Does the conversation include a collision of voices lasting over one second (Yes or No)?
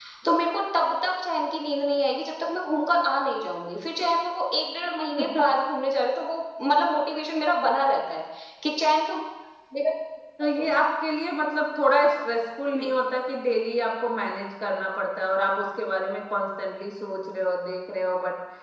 No